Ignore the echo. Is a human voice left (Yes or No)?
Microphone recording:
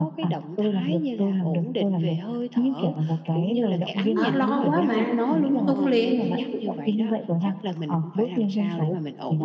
Yes